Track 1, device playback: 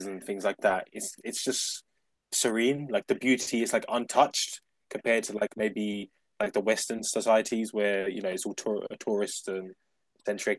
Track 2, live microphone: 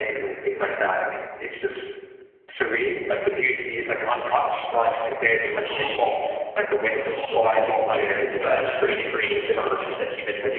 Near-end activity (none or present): present